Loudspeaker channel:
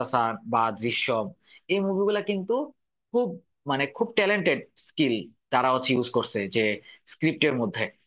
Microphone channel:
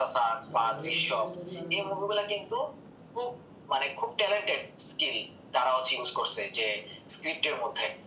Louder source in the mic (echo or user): echo